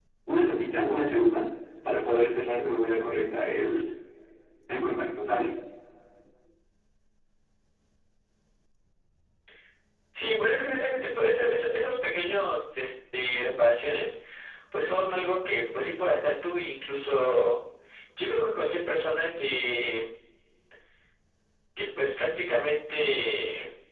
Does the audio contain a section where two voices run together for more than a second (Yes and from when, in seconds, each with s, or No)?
No